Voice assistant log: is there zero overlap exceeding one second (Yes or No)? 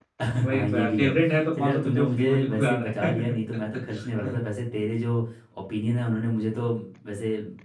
No